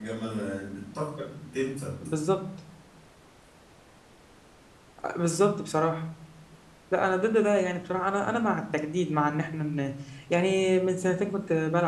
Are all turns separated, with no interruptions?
Yes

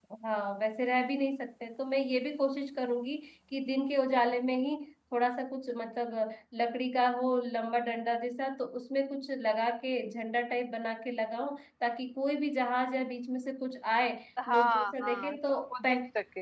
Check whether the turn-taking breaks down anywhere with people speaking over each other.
Yes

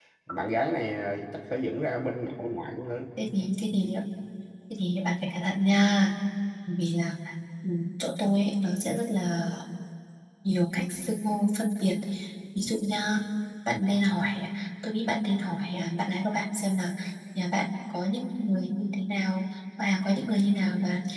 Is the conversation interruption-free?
Yes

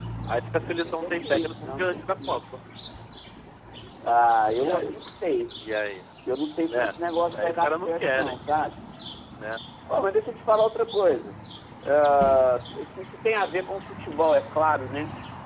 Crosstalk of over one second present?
Yes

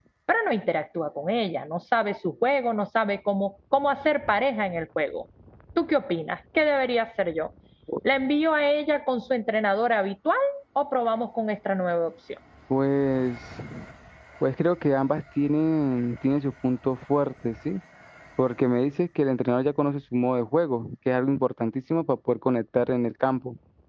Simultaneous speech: No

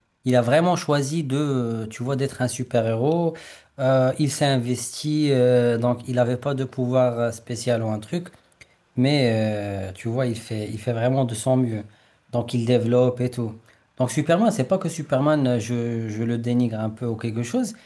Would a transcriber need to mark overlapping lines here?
No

